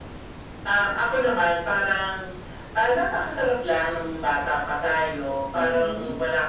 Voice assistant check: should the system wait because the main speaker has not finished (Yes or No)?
Yes